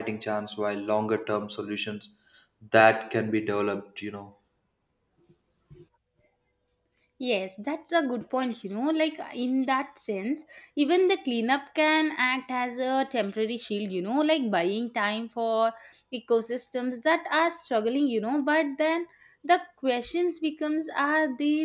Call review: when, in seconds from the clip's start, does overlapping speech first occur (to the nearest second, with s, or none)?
none